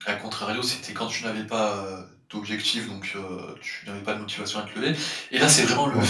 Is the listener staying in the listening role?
Yes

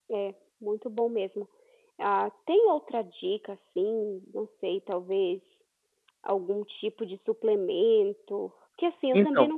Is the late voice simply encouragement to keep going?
Yes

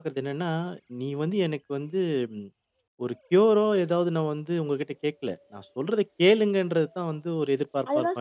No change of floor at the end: No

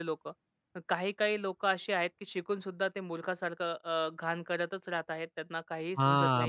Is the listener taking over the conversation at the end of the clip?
Yes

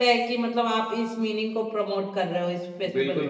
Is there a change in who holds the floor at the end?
Yes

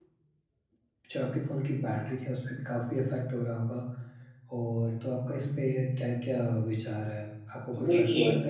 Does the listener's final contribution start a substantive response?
No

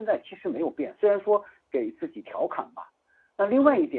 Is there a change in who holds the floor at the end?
No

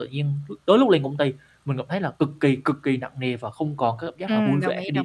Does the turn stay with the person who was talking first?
No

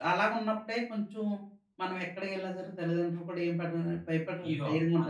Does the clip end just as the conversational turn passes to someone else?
Yes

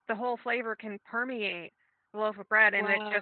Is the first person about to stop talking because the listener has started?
No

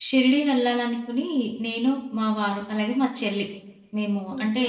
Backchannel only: Yes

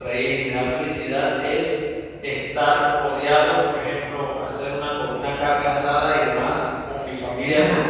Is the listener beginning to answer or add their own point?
No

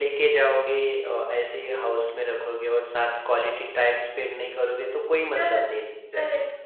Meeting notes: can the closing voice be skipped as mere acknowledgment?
No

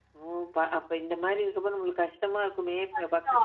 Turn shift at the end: Yes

